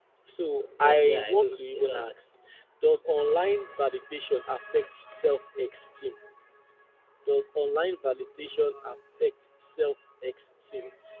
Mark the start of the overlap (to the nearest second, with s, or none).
1 s